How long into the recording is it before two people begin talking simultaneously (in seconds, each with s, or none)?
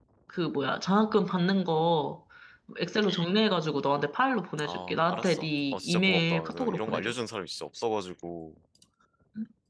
4.6 s